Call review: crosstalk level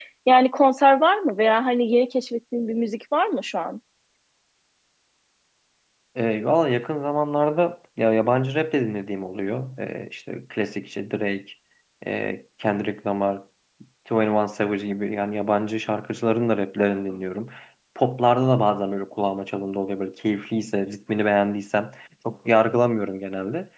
none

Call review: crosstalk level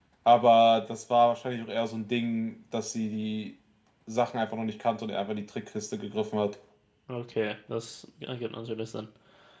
none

